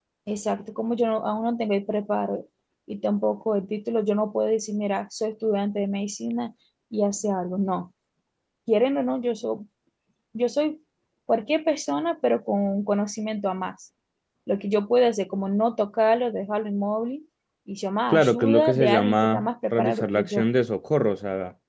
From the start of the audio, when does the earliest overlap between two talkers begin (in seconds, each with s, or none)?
18.1 s